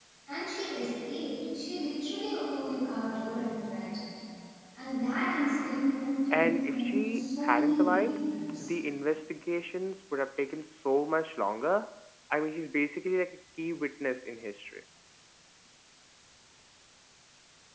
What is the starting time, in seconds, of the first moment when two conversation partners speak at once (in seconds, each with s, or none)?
6.3 s